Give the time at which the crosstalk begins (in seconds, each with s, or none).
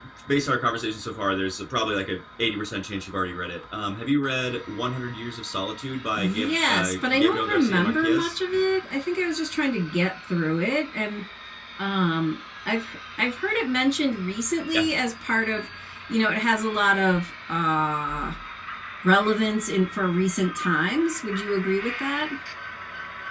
6.2 s